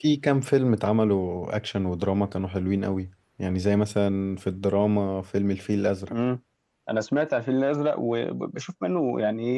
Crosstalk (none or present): none